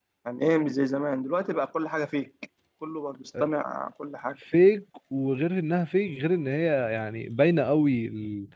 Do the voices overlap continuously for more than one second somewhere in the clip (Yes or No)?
No